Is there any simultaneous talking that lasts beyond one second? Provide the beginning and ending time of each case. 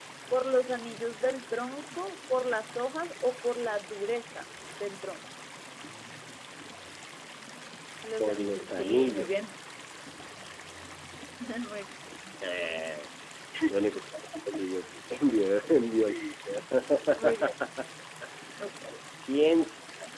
8.2-9.4

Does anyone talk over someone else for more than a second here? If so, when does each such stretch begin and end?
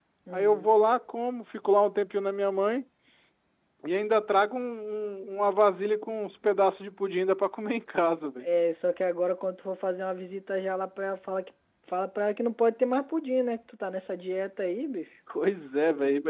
none

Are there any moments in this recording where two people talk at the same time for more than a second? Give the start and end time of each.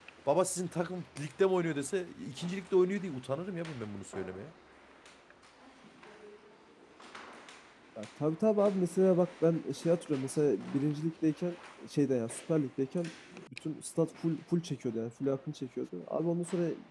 none

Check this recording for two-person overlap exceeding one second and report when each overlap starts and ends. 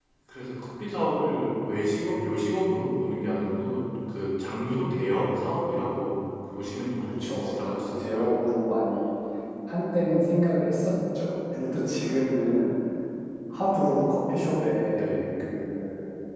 7.0-8.3

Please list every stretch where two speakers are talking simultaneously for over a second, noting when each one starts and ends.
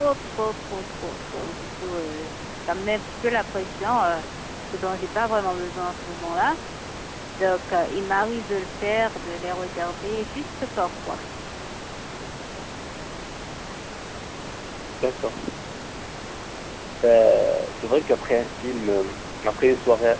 none

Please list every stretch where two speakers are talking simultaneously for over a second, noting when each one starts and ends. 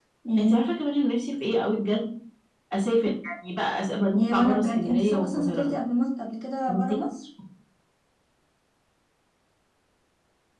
4.2-5.7

